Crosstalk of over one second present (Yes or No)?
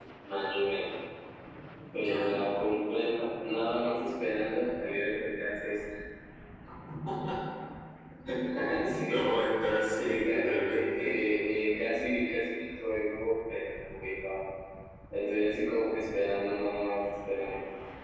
Yes